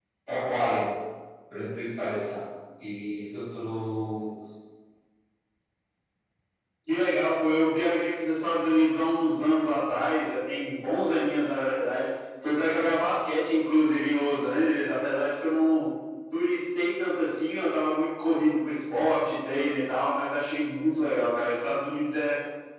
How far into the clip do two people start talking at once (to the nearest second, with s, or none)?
none